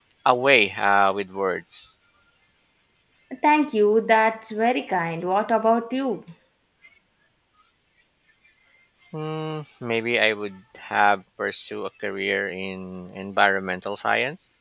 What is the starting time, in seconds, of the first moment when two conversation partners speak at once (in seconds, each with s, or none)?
none